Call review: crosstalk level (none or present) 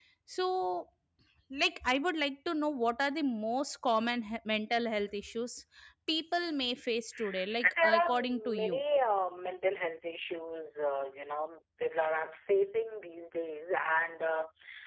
present